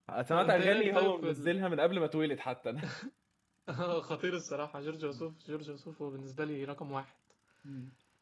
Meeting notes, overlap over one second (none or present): present